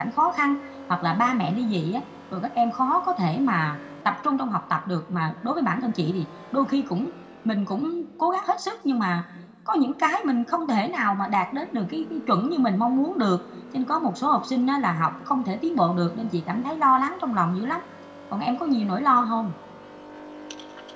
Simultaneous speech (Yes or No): No